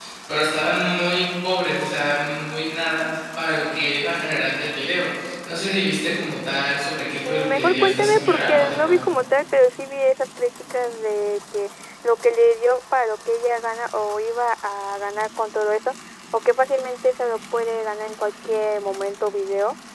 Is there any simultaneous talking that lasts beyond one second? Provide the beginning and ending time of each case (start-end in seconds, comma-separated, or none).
7.2-9.0